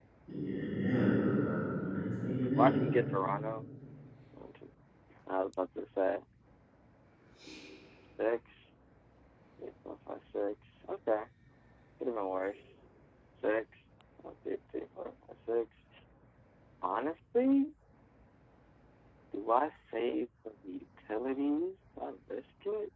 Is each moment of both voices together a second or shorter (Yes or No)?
Yes